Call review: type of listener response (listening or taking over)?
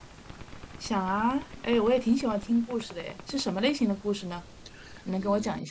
taking over